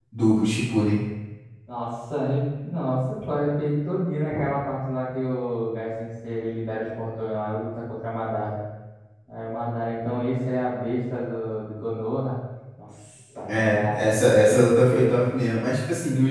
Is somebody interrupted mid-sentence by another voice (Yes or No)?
Yes